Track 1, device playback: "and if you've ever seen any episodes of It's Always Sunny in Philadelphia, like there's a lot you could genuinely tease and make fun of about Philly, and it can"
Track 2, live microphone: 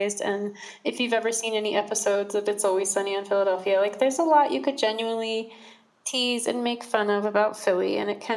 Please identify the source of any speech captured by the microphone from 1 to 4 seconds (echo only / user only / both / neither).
echo only